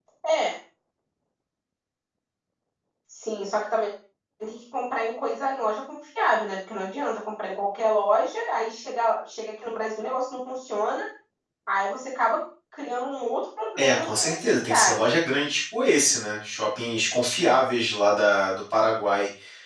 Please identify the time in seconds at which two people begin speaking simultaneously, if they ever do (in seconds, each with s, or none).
13.8 s